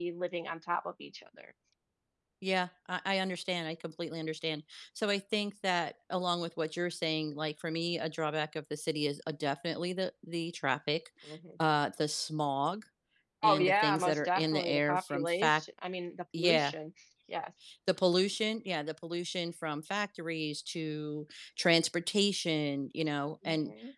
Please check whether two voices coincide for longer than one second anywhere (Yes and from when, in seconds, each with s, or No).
Yes, from 13.4 s